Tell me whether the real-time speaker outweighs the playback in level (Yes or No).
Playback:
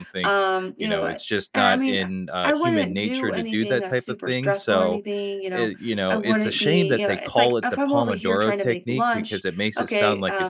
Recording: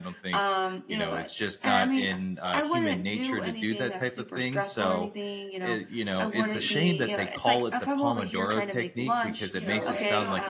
No